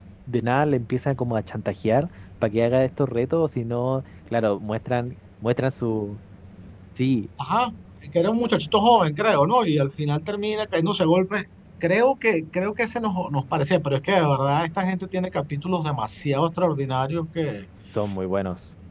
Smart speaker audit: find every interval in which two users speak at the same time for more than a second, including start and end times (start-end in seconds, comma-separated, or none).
none